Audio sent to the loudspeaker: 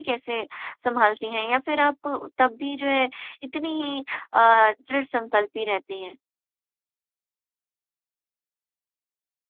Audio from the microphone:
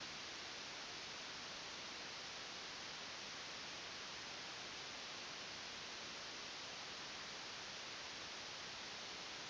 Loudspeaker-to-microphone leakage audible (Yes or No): No